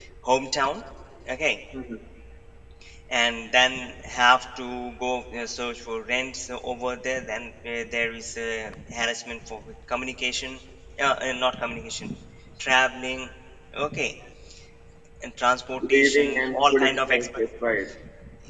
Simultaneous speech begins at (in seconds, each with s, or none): 15.8 s